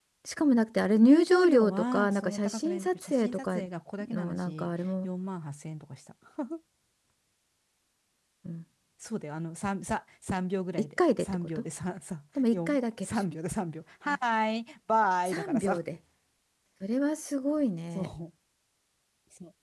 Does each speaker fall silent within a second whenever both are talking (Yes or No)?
No